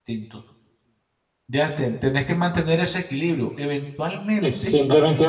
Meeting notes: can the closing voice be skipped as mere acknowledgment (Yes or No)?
No